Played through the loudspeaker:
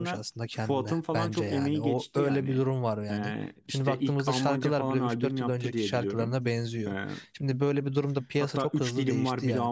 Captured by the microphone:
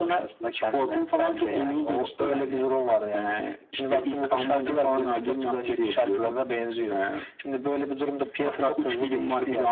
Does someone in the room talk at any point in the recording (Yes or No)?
No